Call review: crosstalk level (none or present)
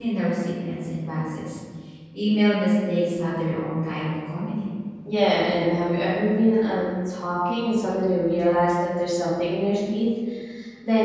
none